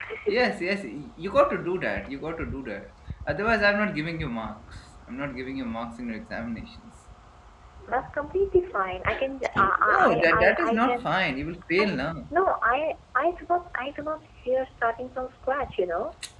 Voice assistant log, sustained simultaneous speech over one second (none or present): present